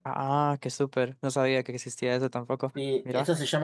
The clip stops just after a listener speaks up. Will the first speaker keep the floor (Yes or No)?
No